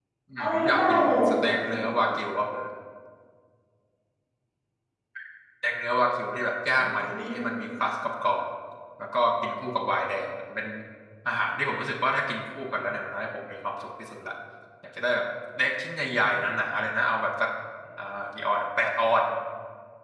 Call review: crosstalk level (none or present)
present